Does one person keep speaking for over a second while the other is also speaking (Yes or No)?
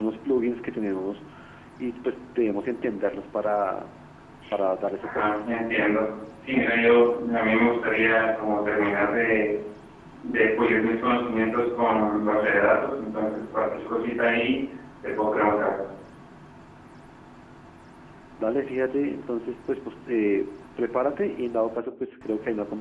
No